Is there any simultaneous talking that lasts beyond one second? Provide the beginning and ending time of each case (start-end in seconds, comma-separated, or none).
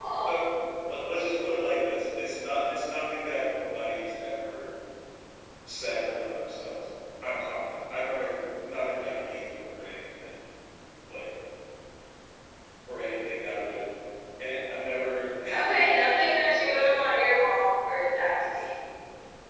15.5-16.9